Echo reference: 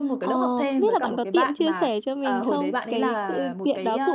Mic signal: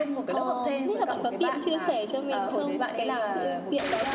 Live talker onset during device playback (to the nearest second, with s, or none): none